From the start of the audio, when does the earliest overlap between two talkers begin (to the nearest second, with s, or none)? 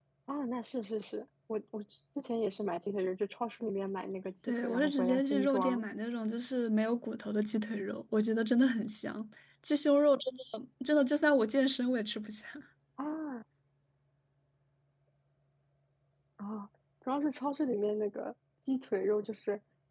4 s